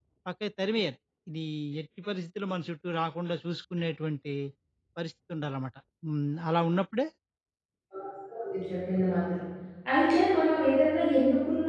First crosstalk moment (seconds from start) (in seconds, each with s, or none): none